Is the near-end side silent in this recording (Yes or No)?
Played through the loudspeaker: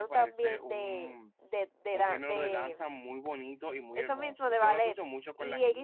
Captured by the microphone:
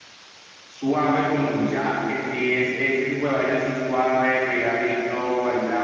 No